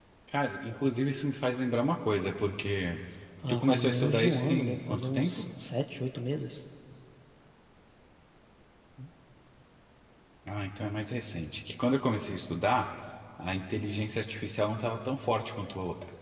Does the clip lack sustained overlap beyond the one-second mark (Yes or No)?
No